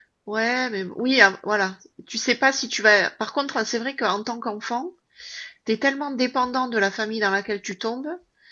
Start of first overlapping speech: none

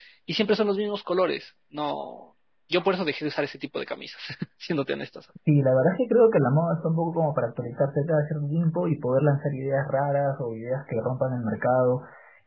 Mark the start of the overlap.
none

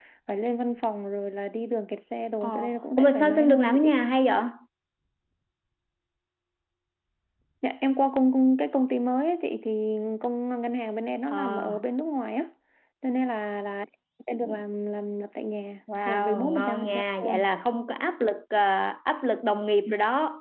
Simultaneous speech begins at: 2.4 s

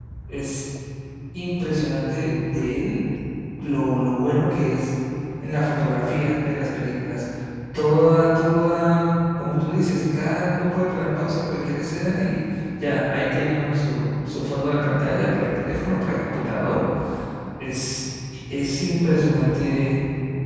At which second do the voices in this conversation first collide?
none

